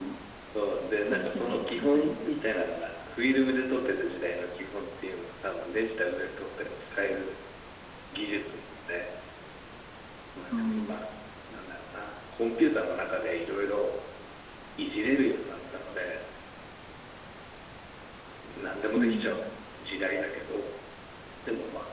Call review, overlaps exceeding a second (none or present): present